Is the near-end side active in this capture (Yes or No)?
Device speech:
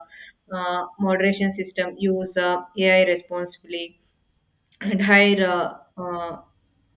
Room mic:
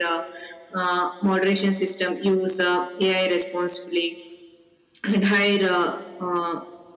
No